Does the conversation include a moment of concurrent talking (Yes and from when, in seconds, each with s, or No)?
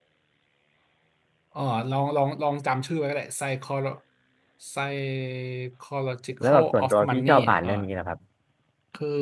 Yes, from 6.4 s